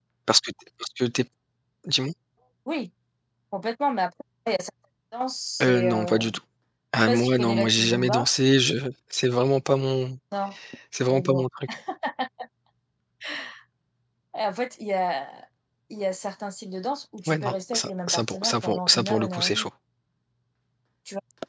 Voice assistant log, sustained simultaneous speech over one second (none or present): present